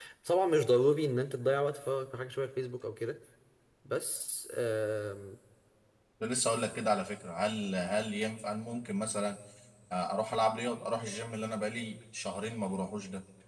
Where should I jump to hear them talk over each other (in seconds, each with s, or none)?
none